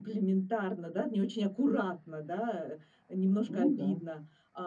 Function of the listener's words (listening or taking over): listening